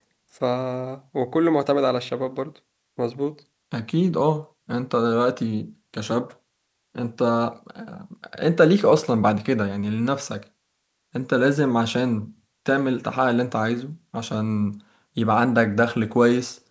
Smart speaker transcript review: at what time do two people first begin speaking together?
none

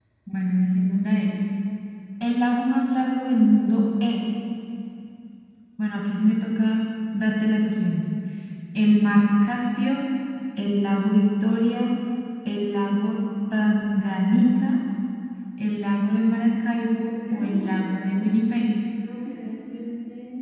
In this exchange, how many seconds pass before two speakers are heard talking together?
16.5 s

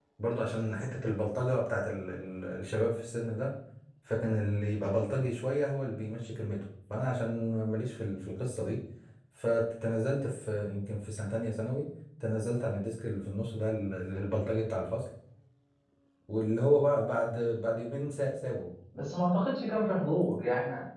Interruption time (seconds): none

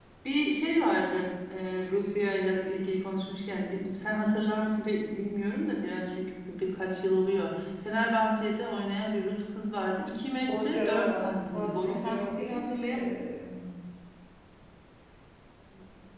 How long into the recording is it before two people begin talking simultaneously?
10.5 s

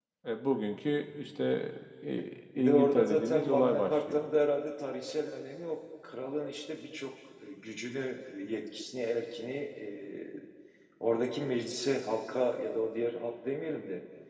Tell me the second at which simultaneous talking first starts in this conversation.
2.5 s

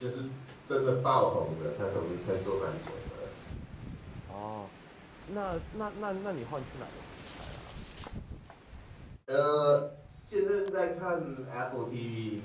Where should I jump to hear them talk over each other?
none

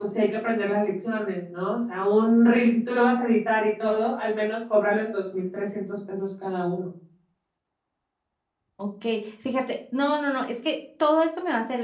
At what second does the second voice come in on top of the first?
none

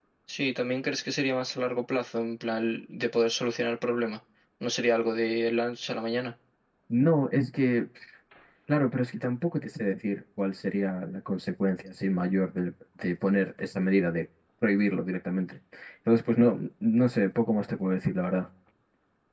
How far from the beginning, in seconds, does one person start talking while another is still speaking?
none

